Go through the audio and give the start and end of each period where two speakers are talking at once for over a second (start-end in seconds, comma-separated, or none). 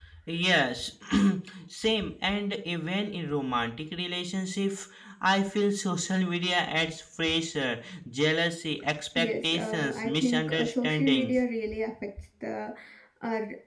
9.2-11.3